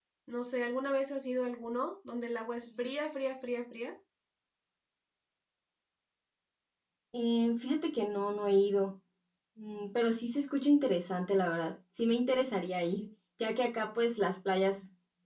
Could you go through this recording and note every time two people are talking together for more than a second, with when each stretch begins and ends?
none

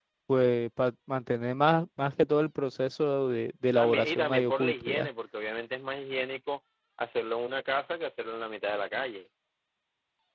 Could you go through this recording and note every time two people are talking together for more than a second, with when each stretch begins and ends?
3.8-5.1

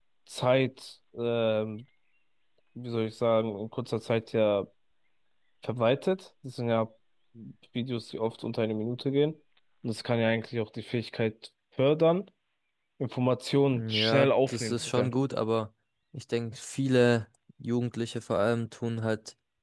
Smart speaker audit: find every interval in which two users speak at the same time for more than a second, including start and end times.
13.7-15.1

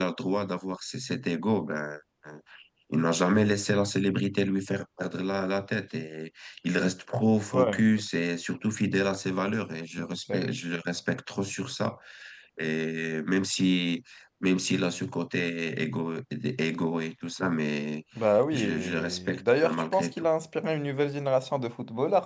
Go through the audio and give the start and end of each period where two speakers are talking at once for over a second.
18.5-20.2

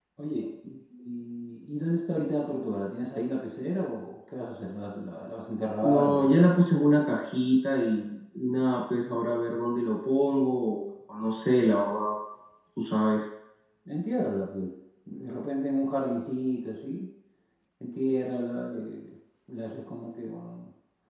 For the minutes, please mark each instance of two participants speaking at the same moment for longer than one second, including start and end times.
none

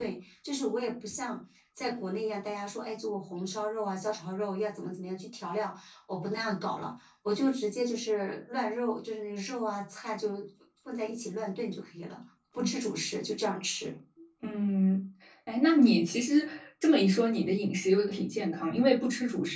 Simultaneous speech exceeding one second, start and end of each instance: none

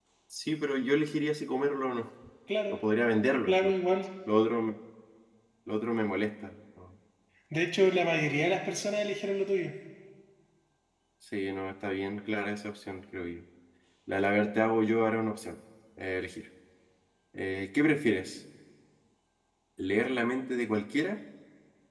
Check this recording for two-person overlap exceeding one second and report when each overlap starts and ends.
none

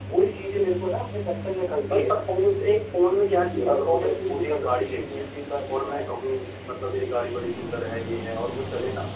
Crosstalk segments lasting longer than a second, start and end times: 3.6-5.2

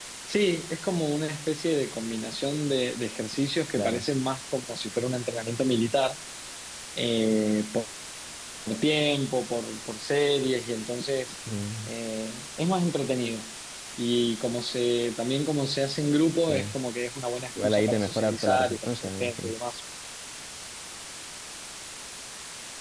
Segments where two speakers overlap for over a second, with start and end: 17.6-19.5

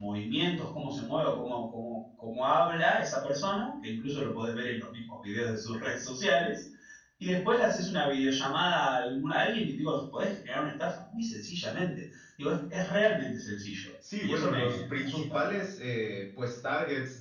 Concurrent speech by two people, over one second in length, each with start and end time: 14.2-15.6

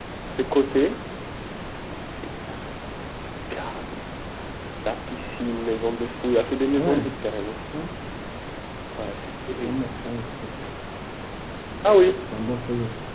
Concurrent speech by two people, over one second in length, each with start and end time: none

